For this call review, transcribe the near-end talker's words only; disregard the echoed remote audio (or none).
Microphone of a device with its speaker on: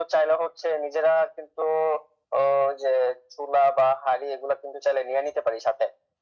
none